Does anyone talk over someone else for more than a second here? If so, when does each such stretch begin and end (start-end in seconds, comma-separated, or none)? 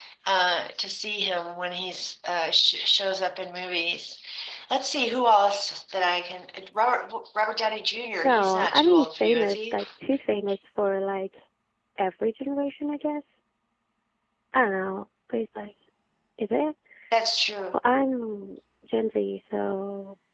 8.2-9.8